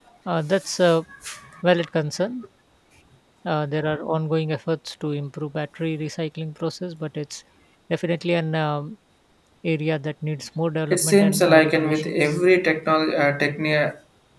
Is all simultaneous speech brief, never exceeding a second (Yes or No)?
No